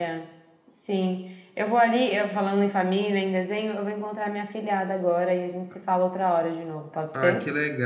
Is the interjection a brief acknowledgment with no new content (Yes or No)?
No